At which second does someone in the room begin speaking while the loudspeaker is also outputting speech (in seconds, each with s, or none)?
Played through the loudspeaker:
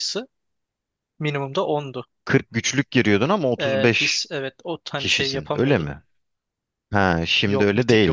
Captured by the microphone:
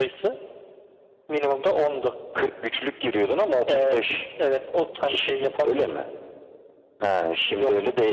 none